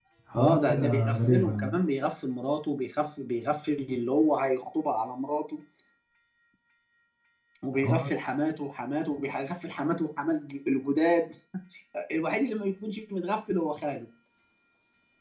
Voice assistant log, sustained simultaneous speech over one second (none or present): present